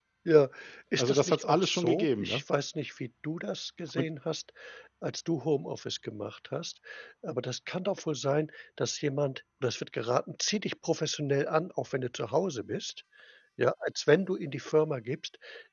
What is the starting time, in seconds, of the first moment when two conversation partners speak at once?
1.0 s

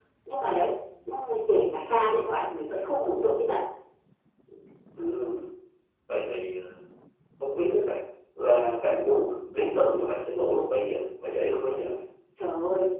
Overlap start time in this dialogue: none

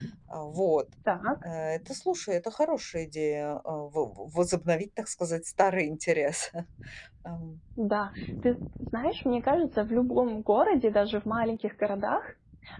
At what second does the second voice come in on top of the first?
none

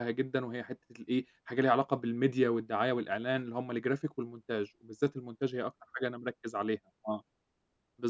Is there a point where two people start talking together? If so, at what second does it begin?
none

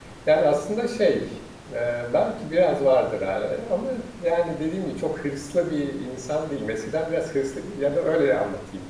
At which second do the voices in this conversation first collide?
none

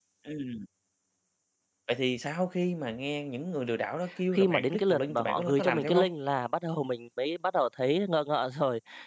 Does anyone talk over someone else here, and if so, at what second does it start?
4.3 s

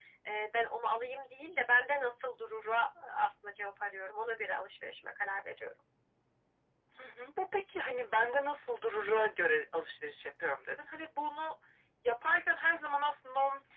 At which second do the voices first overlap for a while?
none

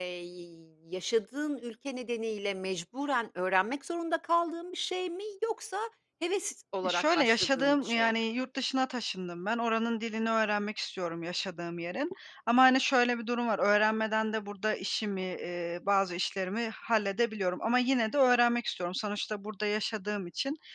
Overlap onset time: 6.8 s

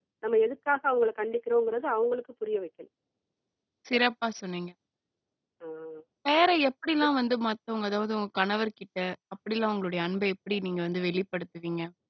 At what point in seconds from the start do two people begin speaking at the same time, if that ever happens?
none

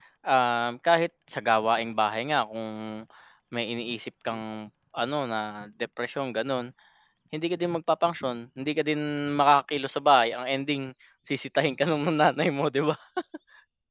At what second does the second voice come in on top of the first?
none

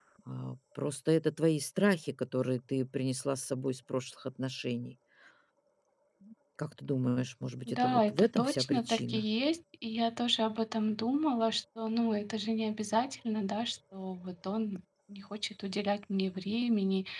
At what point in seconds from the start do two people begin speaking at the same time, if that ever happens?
7.7 s

